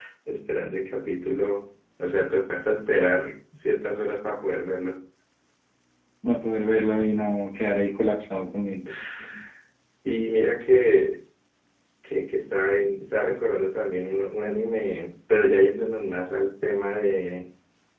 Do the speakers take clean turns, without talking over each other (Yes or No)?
Yes